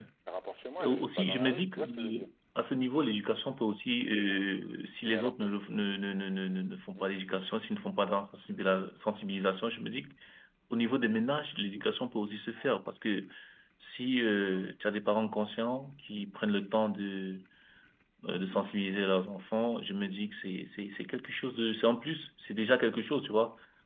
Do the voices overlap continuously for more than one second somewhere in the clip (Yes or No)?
Yes